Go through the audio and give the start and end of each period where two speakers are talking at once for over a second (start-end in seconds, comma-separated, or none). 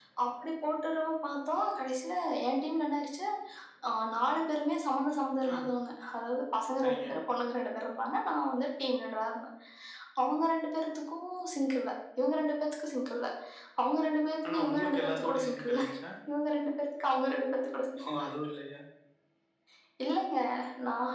14.5-15.8